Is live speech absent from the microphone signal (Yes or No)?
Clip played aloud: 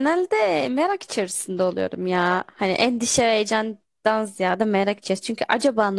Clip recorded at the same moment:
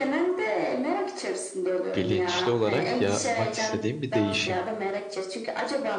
No